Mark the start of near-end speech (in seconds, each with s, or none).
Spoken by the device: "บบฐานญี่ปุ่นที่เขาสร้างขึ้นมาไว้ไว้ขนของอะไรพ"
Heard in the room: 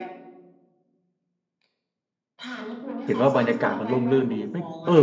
3.0 s